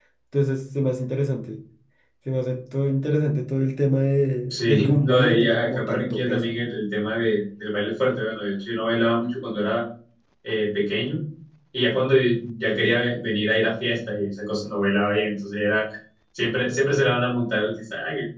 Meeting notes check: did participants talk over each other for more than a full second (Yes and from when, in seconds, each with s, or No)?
Yes, from 4.5 s